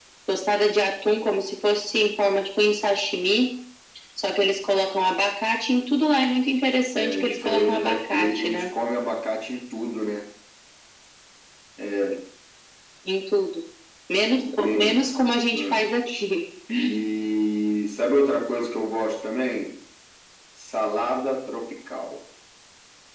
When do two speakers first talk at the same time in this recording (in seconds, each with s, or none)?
6.9 s